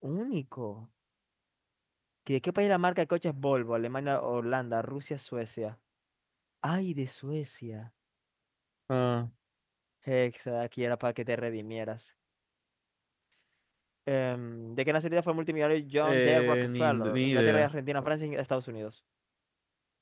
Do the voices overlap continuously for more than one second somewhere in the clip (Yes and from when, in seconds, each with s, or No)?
Yes, from 16.0 s